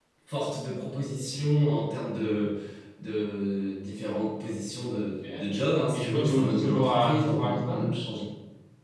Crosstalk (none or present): present